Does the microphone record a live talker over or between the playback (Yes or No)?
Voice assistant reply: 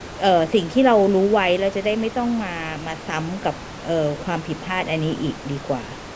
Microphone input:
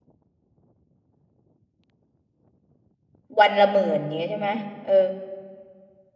Yes